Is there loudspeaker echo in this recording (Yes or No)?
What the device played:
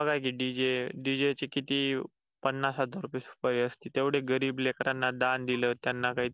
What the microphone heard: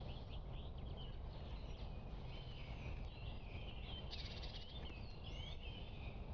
No